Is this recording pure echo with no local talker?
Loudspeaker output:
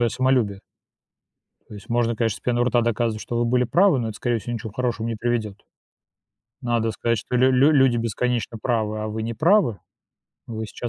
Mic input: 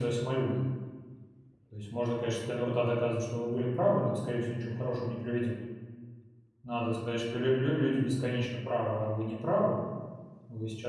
Yes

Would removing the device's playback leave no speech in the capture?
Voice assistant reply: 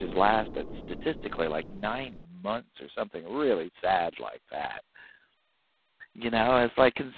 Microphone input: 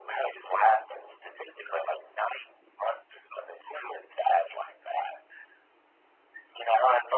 Yes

